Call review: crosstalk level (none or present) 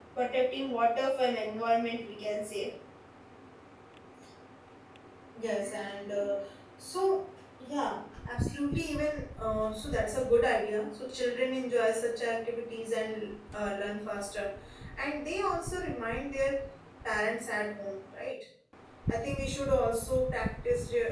none